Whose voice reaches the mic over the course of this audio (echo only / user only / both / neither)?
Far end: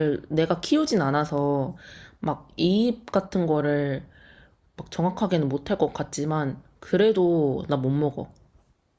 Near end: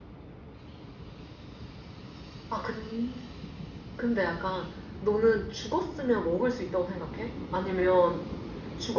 user only